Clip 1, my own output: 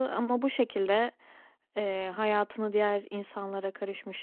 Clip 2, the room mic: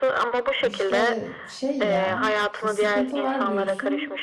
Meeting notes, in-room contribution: present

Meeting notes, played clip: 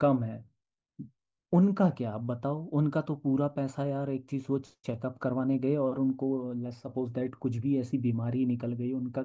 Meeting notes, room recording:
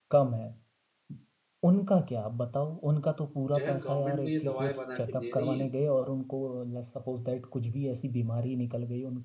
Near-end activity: present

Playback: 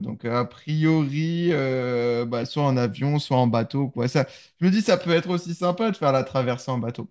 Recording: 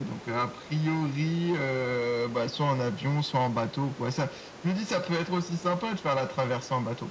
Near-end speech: none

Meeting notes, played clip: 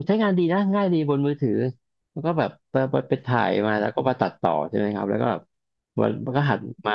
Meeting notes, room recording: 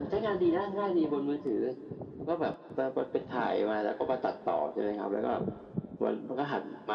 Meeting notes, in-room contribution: none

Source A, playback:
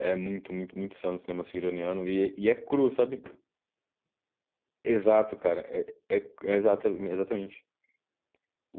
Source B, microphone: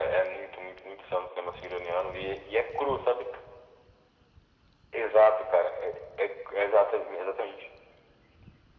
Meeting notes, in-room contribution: none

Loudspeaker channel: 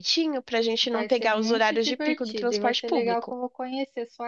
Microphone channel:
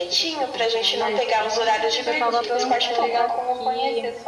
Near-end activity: present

